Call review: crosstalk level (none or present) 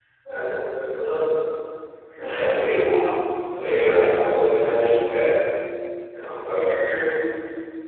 present